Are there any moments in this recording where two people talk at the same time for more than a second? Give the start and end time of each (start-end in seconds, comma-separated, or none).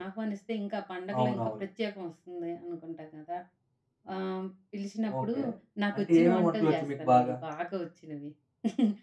6.0-7.3